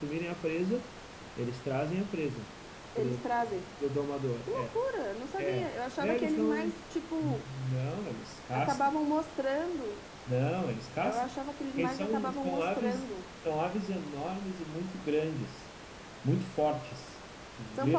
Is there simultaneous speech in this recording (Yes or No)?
Yes